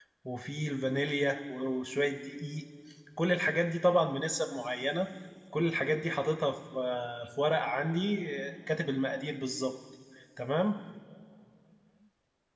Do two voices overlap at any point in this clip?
No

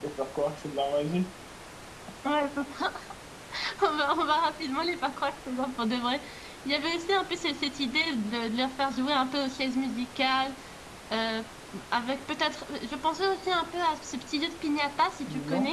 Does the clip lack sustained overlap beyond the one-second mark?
Yes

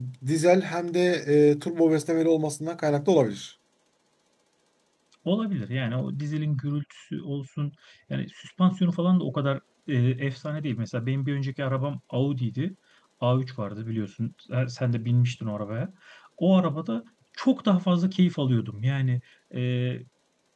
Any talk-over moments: No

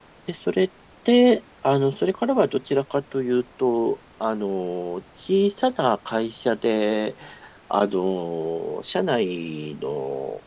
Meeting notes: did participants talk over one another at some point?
No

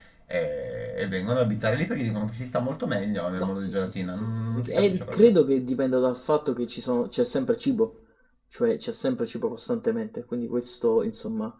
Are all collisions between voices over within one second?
No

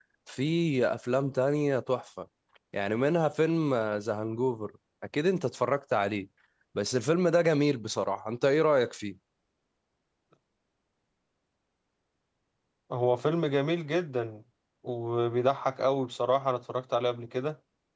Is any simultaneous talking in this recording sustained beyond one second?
No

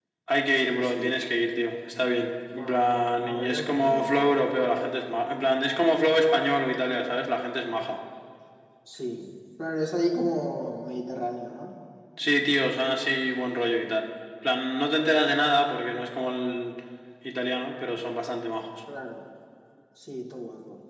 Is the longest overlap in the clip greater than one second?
Yes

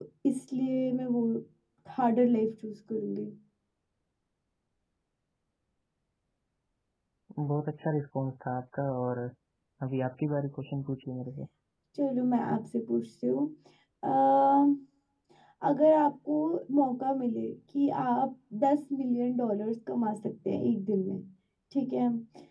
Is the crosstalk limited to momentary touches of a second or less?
Yes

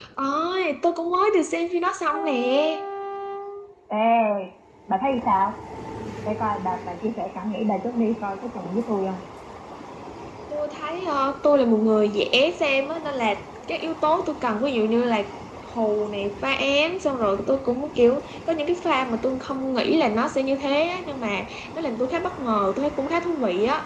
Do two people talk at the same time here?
No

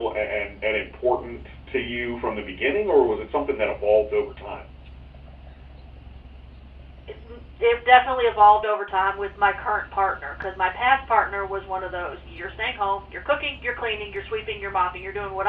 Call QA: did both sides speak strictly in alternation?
Yes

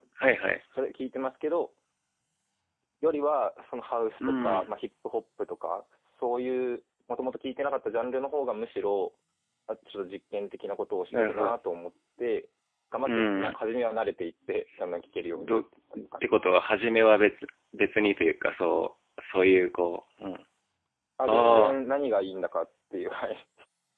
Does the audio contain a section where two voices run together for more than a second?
No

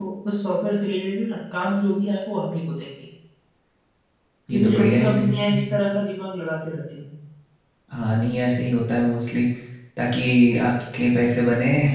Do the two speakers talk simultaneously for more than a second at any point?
Yes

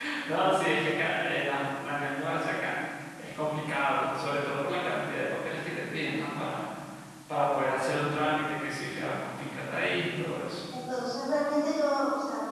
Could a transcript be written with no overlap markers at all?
Yes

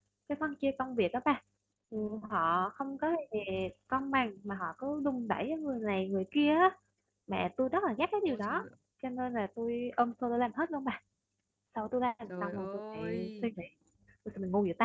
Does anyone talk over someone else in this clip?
Yes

